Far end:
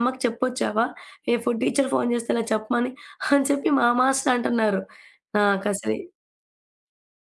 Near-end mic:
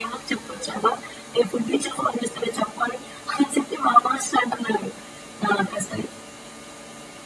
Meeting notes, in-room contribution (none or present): none